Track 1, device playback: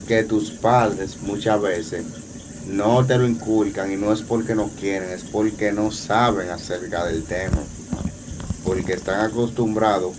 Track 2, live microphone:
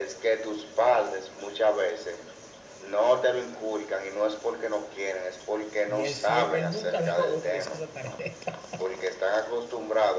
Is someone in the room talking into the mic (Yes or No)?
Yes